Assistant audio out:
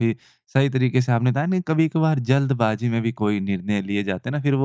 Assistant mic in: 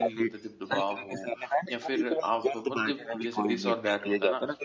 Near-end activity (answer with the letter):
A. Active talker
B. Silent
A